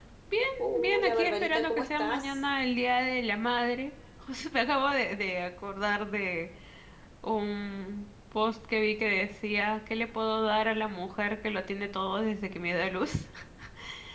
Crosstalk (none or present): present